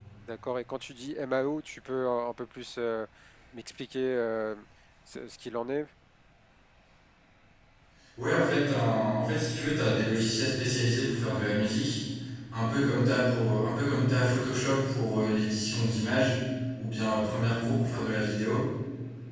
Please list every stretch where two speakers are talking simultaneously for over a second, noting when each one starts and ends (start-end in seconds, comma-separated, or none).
none